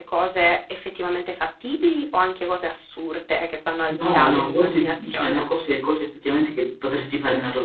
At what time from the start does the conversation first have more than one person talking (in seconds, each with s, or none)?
3.9 s